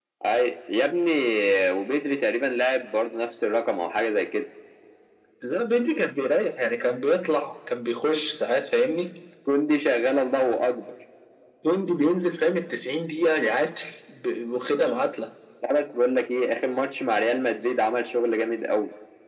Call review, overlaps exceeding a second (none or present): none